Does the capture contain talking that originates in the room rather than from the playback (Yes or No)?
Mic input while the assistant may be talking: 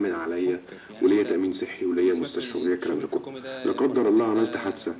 Yes